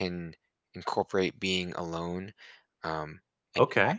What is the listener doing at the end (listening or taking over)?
taking over